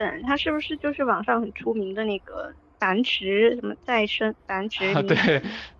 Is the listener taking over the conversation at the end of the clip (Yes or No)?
Yes